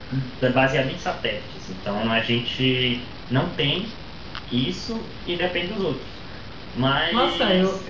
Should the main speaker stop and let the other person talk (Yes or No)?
Yes